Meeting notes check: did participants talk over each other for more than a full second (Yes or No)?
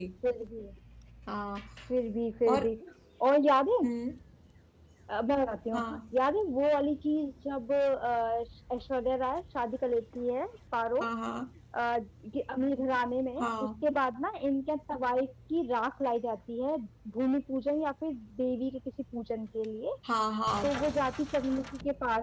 No